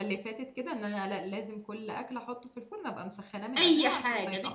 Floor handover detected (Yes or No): Yes